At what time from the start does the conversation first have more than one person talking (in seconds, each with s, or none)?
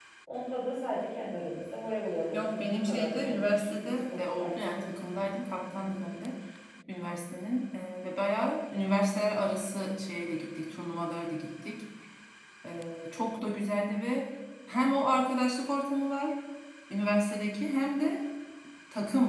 2.3 s